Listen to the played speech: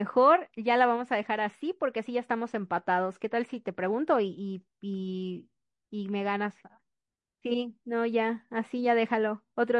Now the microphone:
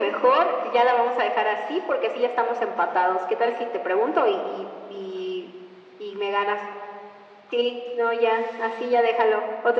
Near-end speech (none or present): none